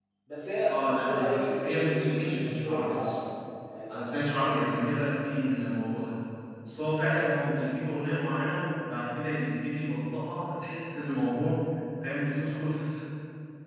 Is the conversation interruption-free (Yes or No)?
No